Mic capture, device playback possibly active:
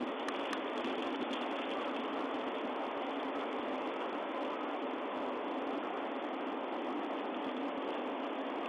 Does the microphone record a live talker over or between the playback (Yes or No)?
No